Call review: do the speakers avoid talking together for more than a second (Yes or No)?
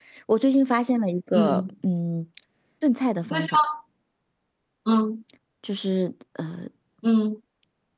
Yes